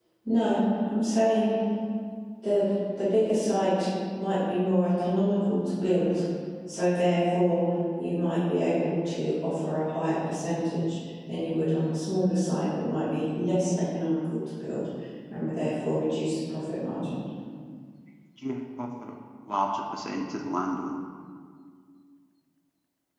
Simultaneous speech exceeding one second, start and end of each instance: none

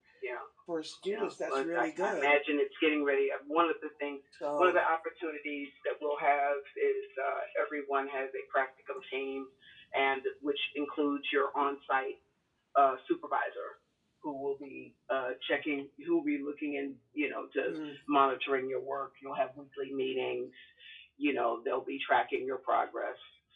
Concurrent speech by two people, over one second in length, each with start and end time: 1.1-2.3

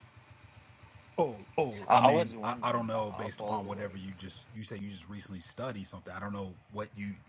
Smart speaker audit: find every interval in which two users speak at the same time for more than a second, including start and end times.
1.9-4.2

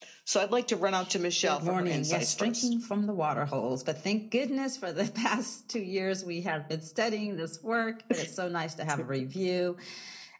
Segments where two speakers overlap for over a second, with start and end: 1.4-2.7

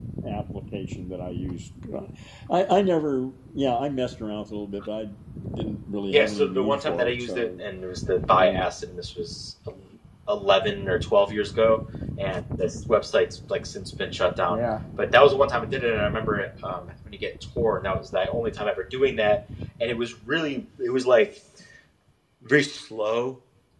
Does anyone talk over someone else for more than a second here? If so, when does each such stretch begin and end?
6.1-7.6

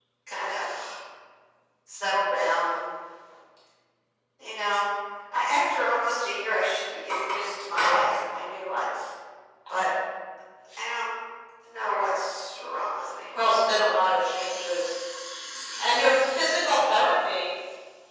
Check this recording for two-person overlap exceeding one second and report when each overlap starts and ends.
none

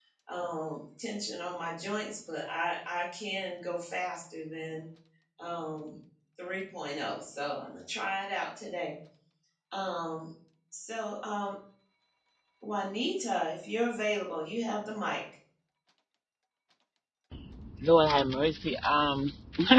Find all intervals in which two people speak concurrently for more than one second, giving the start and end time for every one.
none

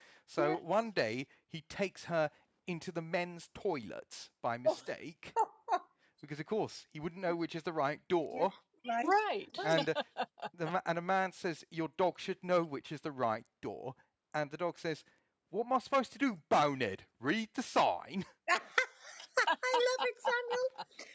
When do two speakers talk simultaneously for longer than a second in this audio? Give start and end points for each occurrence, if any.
none

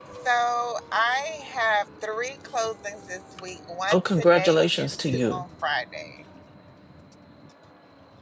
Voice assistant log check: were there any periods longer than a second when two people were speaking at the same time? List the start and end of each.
3.9-5.4

